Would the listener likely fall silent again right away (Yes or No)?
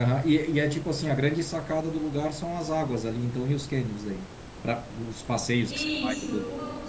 No